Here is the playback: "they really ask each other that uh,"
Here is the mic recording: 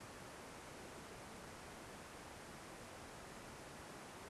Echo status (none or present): none